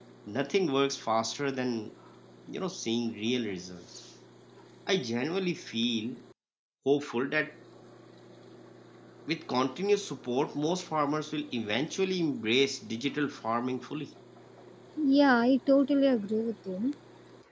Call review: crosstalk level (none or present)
none